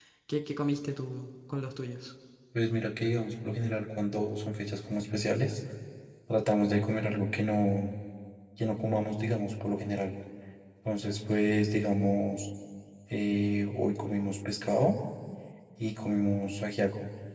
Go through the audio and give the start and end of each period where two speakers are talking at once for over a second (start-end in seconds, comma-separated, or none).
none